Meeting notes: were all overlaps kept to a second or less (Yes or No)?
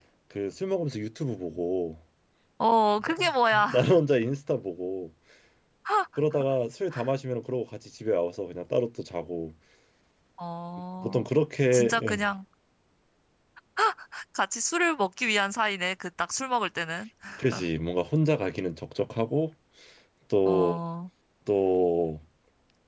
Yes